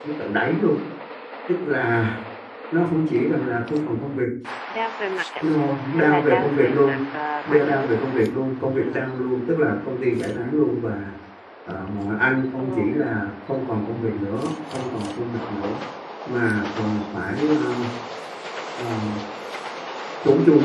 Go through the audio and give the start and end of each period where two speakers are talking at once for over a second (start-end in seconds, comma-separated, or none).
5.4-7.0